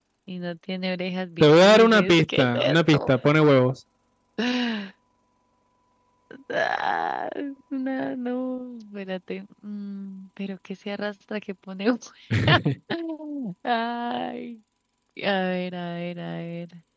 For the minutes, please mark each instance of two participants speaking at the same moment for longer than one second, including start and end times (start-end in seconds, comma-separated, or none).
1.4-3.1